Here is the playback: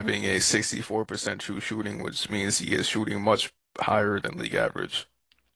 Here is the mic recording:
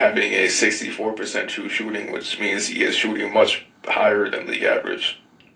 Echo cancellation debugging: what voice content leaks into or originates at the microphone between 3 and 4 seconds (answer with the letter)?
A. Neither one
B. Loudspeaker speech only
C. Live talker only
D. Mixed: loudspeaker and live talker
B